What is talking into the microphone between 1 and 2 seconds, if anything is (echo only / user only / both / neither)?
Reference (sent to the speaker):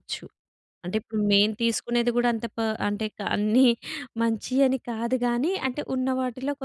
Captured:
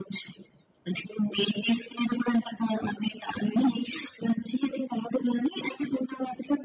echo only